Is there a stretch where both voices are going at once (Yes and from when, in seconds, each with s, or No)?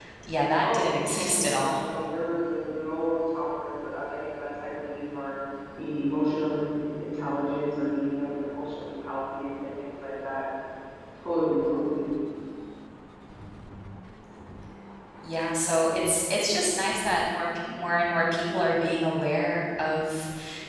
Yes, from 0.6 s